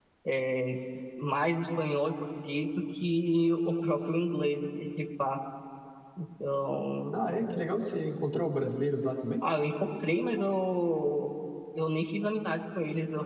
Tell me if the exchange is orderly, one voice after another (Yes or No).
Yes